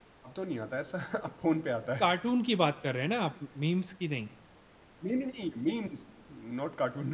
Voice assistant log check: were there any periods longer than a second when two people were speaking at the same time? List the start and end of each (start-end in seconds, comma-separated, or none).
none